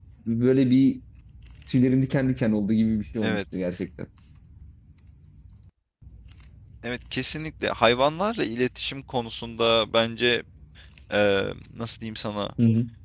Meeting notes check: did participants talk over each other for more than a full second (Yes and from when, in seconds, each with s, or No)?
No